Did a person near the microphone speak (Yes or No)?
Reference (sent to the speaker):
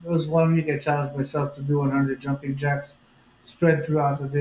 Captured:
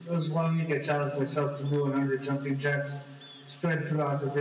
No